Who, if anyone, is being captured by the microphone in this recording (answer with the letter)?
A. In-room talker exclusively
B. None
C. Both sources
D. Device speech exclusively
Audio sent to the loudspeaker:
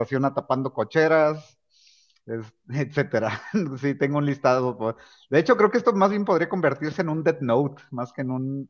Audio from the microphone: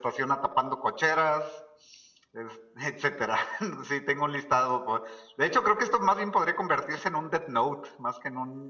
D